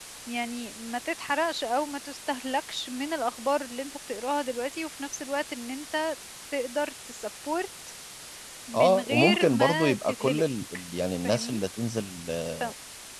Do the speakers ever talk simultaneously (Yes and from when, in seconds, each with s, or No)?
Yes, from 8.7 s